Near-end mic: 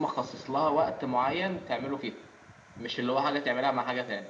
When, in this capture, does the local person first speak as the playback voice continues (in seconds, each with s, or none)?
none